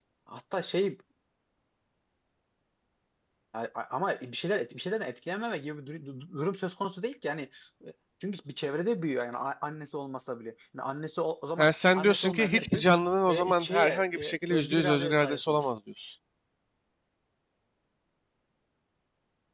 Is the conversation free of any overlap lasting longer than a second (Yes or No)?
No